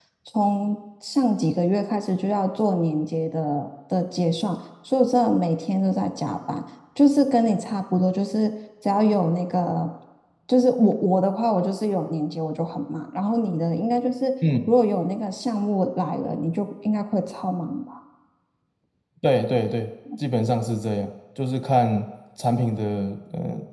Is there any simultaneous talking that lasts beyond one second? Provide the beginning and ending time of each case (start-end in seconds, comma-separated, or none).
none